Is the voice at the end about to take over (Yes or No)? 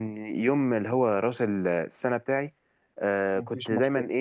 No